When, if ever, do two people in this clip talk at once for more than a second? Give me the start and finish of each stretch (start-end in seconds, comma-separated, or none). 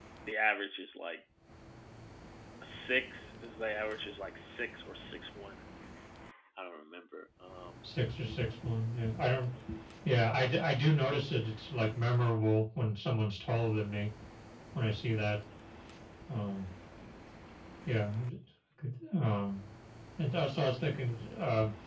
none